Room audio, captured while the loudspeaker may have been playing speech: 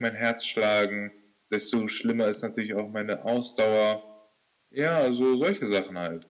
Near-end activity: none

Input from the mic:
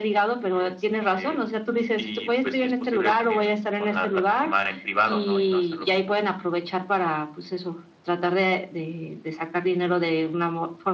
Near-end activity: none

